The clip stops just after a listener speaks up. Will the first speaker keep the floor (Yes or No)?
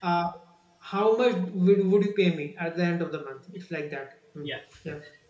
No